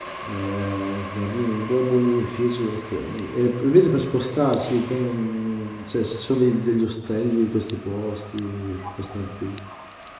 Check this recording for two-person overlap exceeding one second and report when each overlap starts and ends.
none

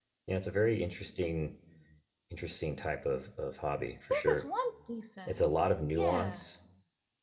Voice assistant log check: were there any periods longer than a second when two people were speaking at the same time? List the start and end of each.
none

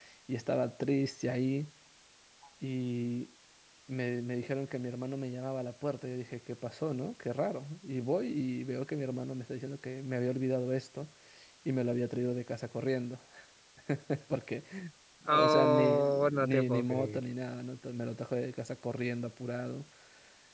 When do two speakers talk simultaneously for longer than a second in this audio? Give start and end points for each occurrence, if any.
15.3-17.2

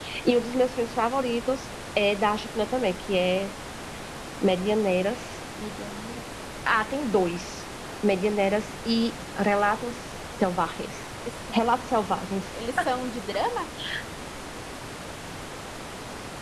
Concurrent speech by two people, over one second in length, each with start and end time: none

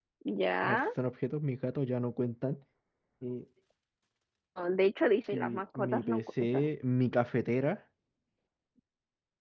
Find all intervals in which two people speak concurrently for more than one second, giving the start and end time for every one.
5.3-6.6

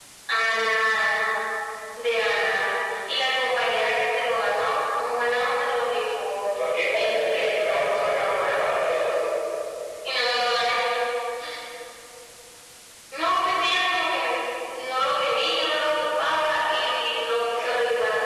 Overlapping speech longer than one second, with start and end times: 7.0-9.0

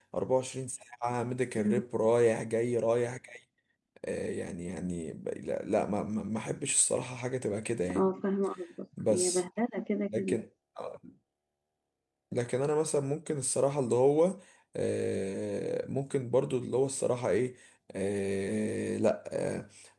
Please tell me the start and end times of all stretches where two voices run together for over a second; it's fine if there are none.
none

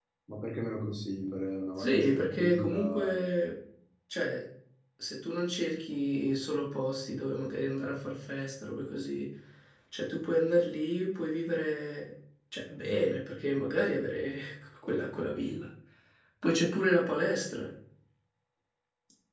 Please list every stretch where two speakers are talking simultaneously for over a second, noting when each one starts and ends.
1.8-3.2

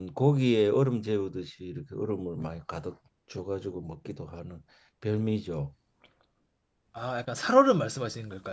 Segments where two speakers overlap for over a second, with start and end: none

